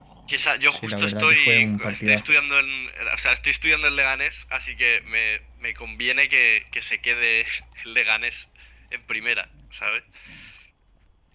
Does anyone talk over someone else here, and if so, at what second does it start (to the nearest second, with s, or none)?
1 s